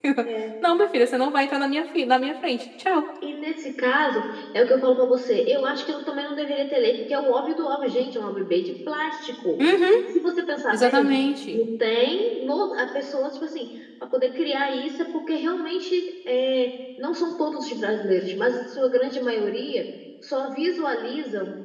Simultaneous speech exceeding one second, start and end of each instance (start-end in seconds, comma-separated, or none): none